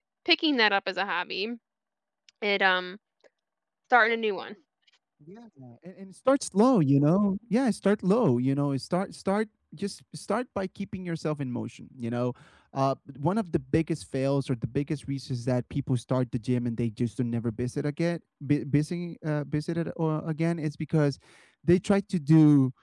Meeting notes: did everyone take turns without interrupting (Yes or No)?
Yes